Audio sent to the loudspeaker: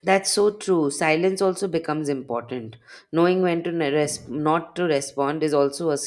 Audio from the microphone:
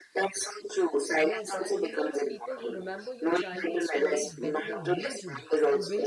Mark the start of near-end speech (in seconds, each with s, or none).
1.2 s